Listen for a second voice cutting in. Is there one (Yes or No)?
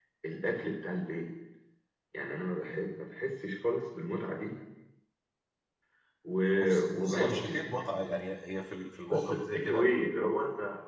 Yes